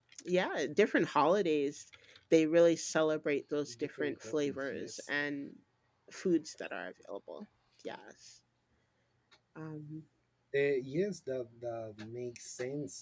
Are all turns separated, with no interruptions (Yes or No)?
No